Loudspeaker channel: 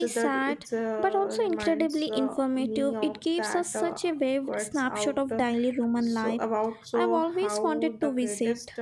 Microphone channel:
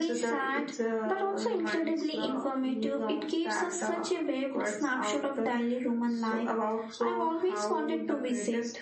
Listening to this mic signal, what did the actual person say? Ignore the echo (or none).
none